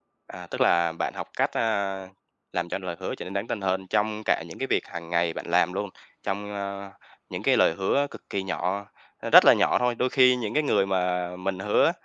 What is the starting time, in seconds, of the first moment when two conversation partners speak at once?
none

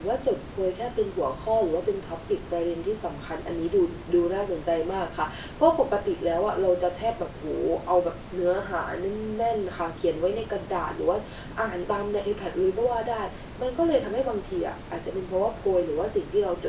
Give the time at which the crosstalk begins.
none

